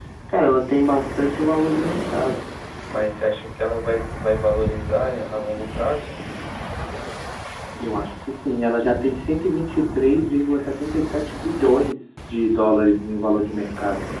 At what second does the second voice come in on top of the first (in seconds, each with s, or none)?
none